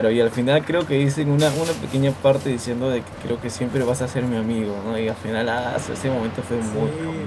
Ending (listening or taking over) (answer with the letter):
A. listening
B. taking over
B